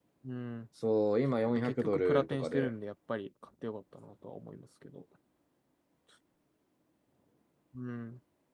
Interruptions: present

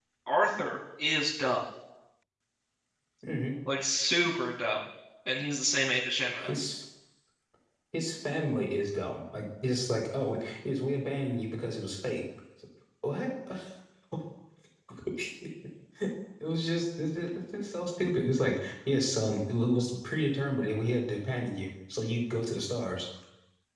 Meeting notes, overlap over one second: none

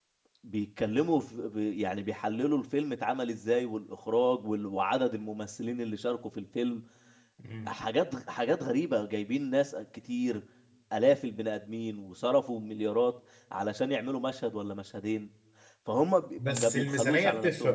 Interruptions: present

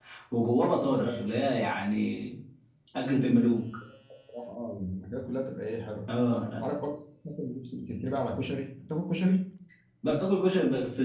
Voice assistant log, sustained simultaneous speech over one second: none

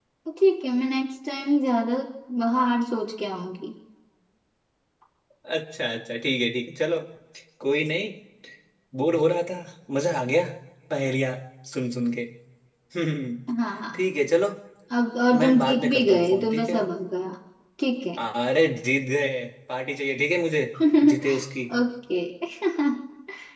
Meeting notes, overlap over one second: present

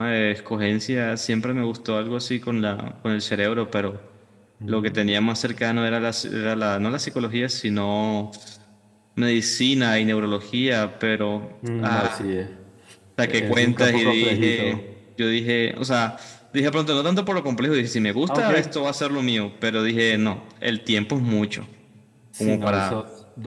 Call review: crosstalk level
present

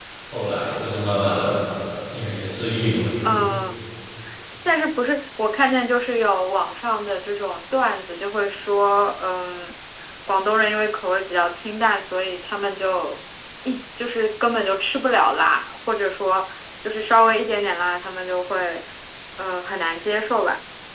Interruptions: none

